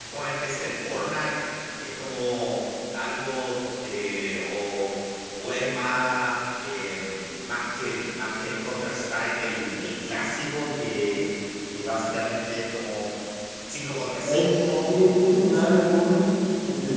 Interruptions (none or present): present